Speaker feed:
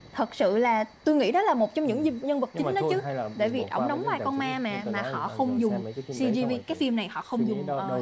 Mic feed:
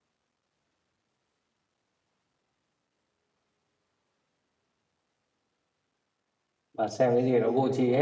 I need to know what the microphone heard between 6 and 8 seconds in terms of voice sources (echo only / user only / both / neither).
user only